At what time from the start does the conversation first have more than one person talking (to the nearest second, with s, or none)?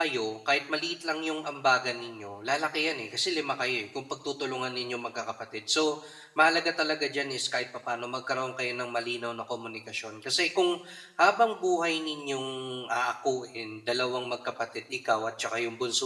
none